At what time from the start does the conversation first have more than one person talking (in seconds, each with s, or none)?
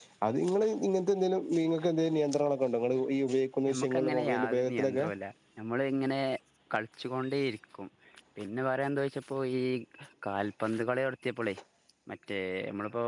3.6 s